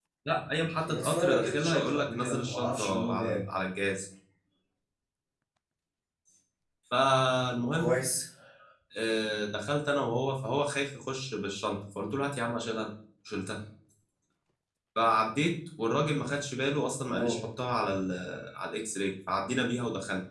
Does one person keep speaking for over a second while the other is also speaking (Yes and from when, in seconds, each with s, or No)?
Yes, from 0.9 s